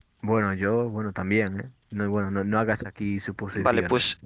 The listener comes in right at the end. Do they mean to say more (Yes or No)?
Yes